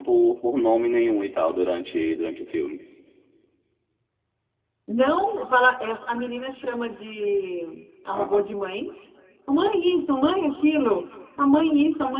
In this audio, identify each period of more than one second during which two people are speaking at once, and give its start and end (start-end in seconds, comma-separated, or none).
none